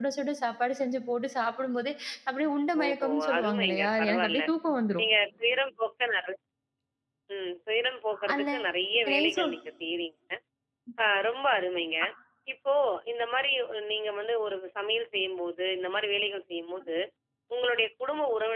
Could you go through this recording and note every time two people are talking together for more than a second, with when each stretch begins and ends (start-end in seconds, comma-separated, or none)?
2.8-4.4